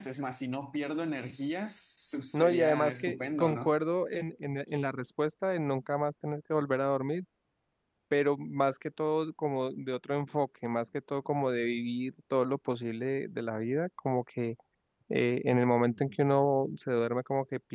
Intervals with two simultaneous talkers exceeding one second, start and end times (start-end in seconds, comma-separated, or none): 2.3-3.7